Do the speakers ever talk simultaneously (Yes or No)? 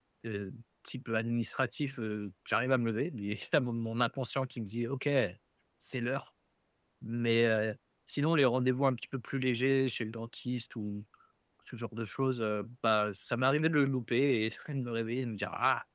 No